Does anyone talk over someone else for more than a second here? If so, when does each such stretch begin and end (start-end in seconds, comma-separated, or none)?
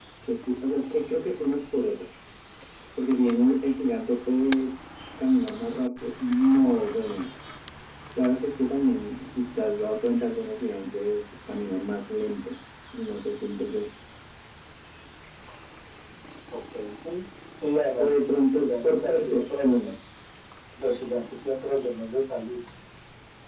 18.0-19.8